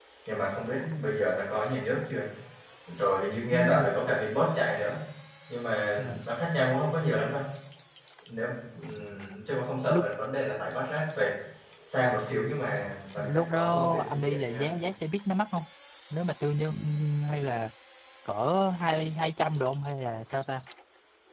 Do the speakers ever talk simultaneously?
Yes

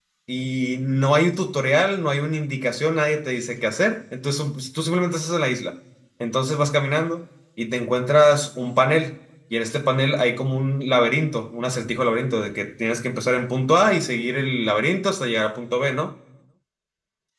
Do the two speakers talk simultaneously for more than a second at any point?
No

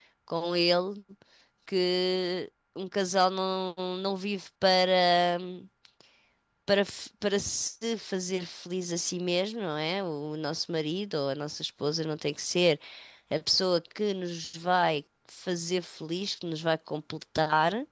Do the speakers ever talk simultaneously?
No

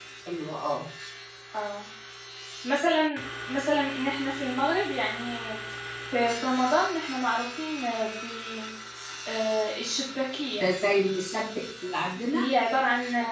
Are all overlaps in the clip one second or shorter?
Yes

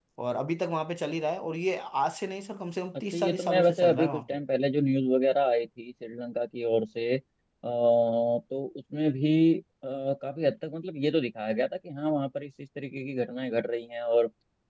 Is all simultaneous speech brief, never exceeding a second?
No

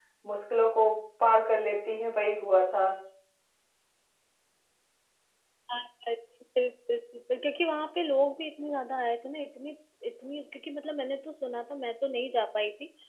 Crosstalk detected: No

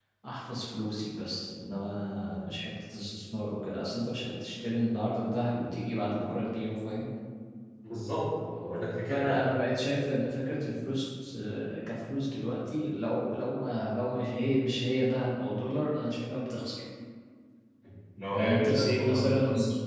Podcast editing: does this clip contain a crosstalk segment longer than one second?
Yes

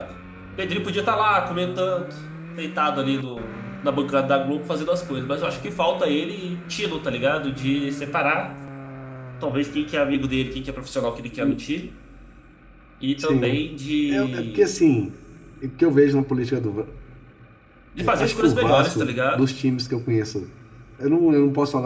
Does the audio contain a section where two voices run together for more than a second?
Yes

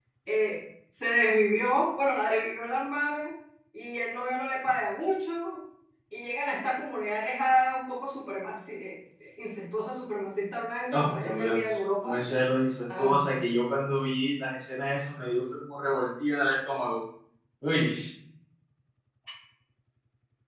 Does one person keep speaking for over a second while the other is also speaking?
Yes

